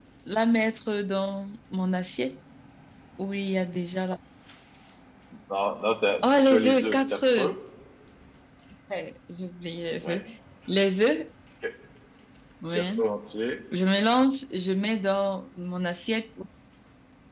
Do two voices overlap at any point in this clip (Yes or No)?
Yes